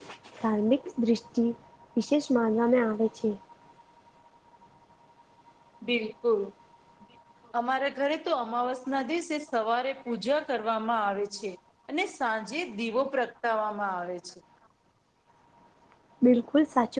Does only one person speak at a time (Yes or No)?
Yes